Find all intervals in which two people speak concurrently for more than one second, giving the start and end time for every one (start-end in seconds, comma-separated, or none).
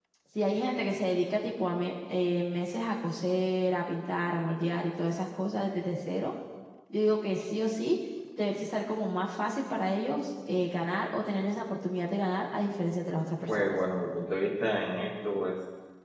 none